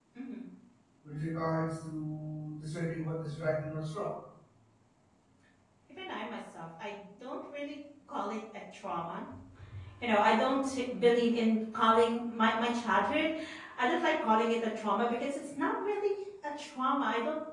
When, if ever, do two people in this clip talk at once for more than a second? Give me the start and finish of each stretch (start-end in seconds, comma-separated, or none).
none